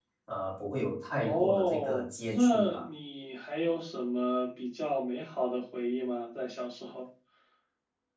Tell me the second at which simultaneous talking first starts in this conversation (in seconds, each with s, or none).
1.2 s